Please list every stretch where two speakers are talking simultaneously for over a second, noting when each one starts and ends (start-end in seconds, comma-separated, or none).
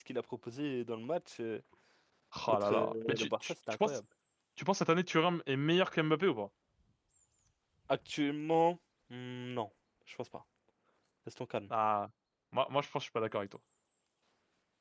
2.5-4.0